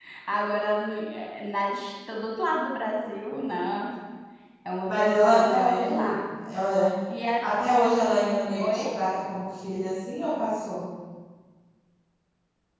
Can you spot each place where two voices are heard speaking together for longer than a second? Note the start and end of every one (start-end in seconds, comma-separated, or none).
4.8-6.2